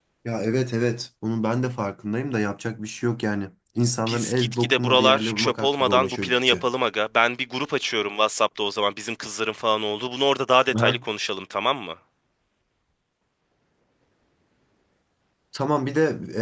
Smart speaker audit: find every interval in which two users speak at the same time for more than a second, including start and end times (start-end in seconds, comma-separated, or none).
4.1-6.6